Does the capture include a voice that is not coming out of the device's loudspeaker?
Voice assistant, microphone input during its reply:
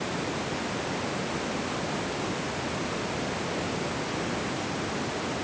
No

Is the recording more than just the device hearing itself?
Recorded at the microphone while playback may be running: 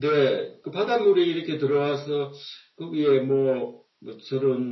No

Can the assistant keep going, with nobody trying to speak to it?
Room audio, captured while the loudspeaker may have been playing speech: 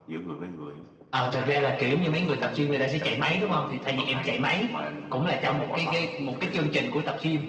Yes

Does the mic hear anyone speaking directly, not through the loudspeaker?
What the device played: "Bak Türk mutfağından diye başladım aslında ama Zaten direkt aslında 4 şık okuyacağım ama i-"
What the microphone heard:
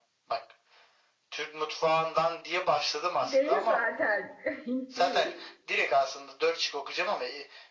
Yes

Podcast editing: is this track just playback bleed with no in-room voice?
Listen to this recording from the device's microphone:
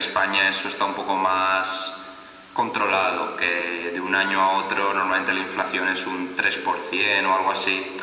Yes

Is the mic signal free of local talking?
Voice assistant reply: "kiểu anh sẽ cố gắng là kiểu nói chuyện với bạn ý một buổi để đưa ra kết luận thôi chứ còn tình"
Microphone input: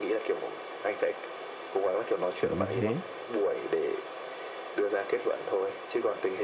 No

